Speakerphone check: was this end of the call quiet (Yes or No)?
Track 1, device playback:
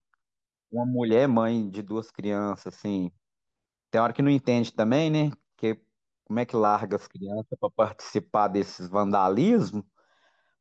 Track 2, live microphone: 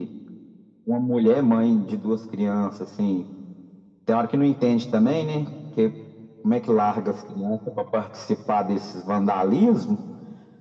Yes